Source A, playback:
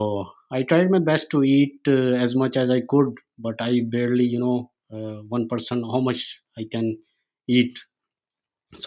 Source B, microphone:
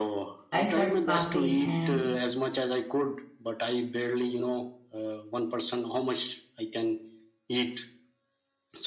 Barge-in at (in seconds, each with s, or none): 0.5 s